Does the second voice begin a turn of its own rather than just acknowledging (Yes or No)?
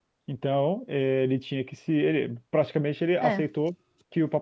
No